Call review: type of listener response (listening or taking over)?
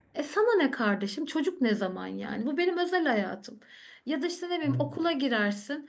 listening